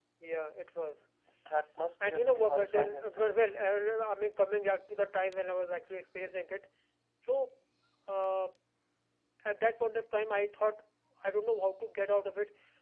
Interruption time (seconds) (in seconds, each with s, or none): 2.0 s